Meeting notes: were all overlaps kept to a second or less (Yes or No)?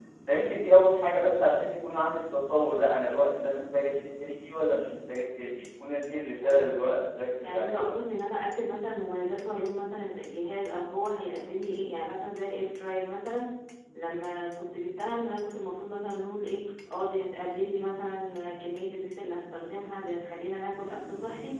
Yes